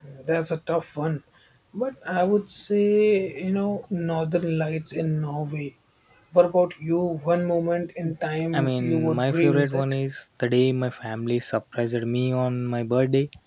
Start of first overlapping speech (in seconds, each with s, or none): 8.5 s